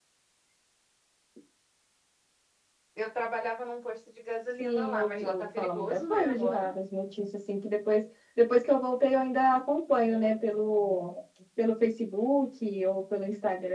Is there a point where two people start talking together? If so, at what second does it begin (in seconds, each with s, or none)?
4.6 s